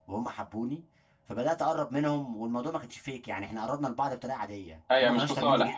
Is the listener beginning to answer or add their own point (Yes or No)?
Yes